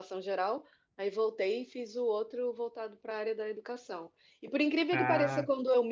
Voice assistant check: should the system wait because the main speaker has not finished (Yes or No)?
Yes